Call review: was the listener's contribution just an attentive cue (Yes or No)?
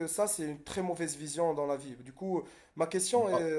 Yes